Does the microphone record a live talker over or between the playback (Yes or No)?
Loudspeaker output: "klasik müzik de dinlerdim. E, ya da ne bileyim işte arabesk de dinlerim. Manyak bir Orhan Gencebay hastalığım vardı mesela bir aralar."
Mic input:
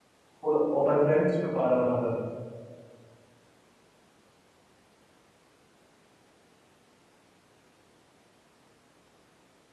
Yes